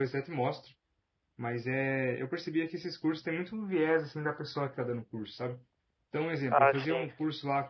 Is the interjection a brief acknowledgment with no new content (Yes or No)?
Yes